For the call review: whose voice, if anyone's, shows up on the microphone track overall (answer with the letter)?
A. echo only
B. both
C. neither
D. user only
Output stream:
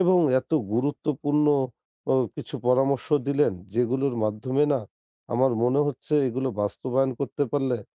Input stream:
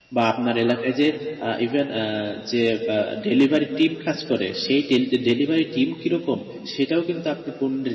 D